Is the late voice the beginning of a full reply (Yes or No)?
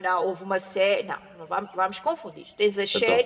No